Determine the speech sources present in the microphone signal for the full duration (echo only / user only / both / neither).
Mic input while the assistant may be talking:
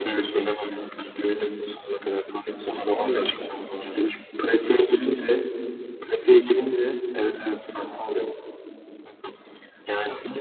echo only